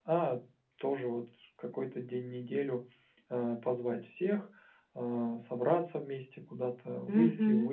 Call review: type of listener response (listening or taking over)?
listening